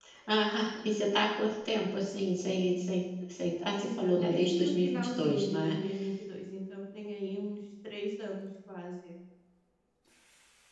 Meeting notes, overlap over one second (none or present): present